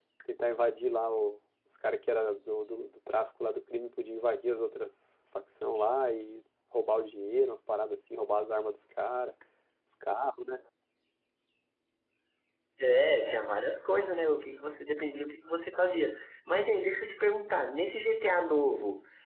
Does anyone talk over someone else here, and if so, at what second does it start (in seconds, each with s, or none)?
none